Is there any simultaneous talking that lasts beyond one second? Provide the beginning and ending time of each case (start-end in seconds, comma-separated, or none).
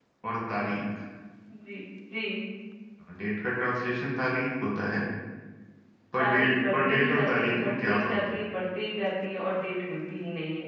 6.2-8.4